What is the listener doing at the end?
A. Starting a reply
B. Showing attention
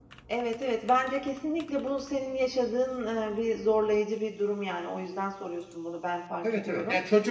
A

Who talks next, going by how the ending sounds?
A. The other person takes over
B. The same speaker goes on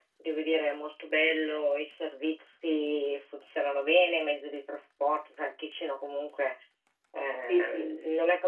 B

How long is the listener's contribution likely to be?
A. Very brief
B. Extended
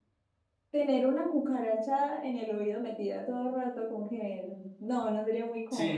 B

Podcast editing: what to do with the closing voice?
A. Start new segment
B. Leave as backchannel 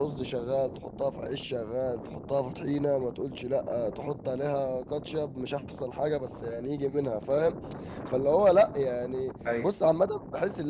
B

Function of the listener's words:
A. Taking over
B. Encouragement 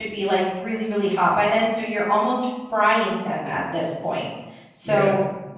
B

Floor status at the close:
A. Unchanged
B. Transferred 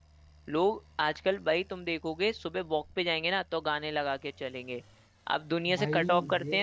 A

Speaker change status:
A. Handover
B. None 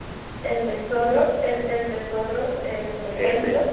B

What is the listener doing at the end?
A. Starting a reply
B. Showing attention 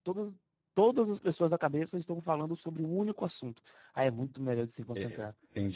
A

